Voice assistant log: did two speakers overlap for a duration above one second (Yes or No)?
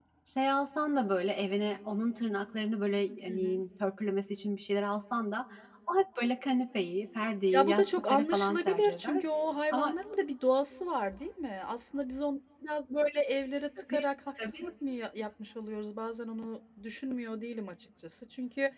Yes